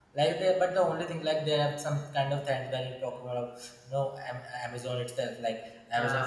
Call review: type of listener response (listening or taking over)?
listening